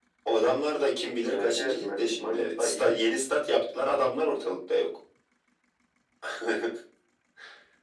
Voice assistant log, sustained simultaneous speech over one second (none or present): present